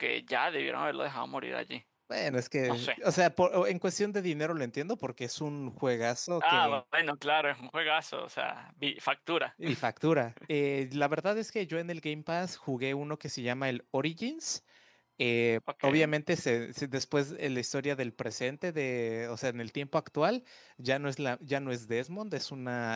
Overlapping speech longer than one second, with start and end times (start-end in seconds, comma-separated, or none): none